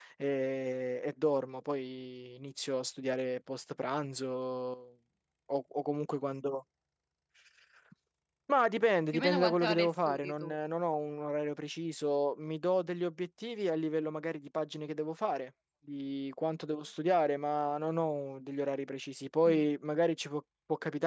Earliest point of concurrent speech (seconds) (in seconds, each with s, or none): 9.1 s